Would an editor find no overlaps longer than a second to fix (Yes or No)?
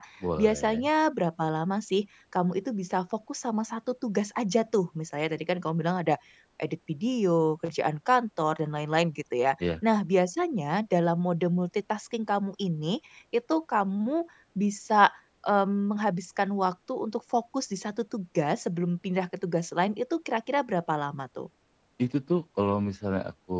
Yes